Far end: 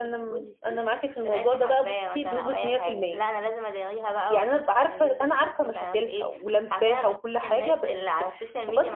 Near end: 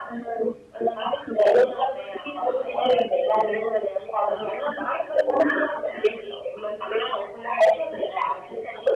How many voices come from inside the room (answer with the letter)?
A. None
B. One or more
A